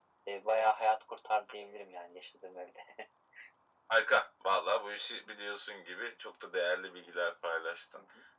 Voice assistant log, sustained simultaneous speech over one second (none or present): none